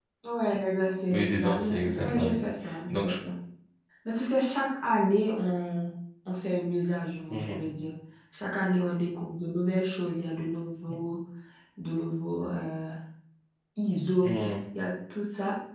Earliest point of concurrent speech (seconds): 1.1 s

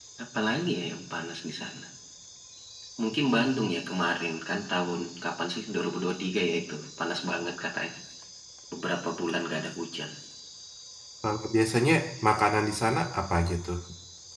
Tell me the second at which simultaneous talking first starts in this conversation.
none

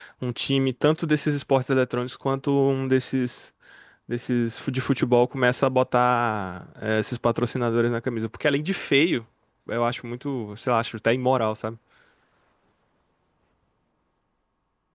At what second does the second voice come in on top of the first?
none

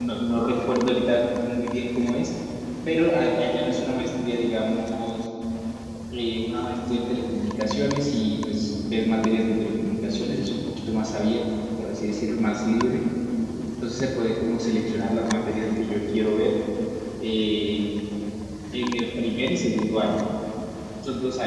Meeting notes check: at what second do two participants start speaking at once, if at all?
none

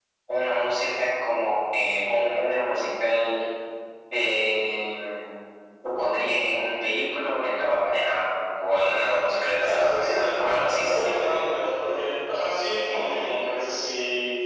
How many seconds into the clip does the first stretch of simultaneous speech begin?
9.6 s

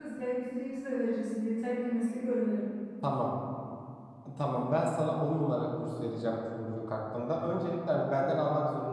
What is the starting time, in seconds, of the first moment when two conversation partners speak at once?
none

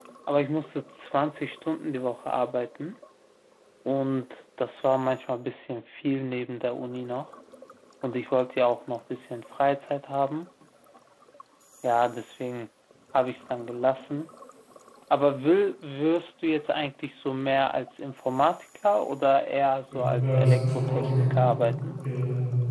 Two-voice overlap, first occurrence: 19.9 s

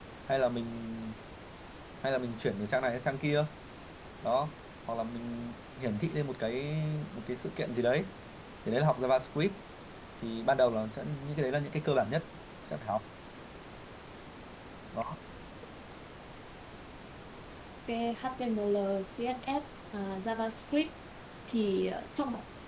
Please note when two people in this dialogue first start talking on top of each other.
none

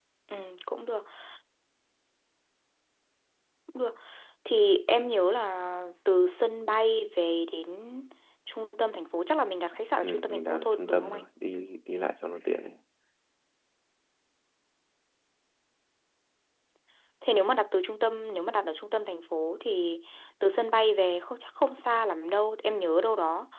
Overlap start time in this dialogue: 10.0 s

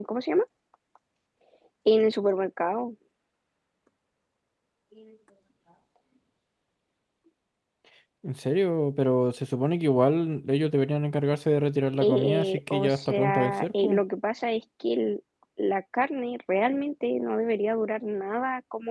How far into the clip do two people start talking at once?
12.0 s

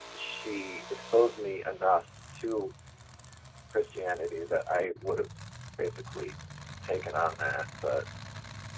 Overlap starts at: none

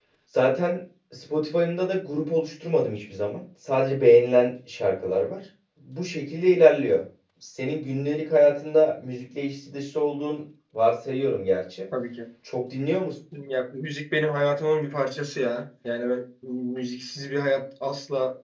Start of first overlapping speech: none

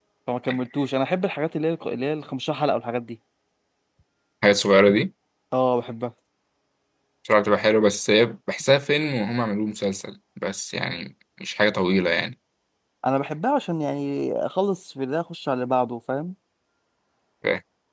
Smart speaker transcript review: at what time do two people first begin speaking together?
none

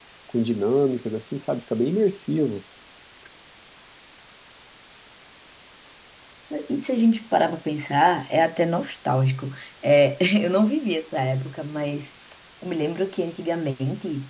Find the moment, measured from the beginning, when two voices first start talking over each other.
none

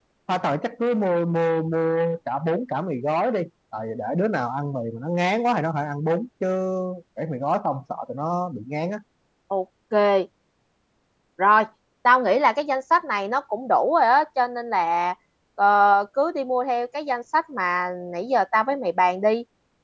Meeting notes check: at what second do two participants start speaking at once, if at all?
none

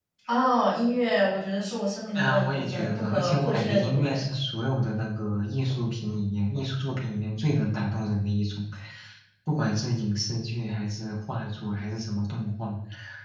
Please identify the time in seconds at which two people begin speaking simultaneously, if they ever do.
2.1 s

